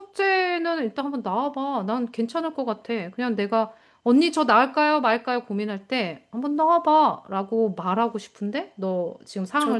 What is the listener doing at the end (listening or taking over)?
taking over